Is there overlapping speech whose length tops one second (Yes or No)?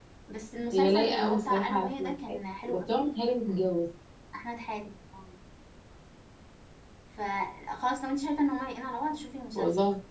Yes